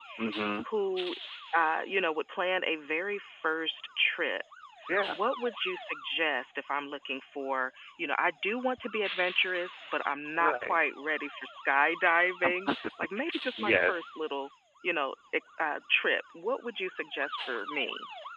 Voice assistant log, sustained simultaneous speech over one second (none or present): none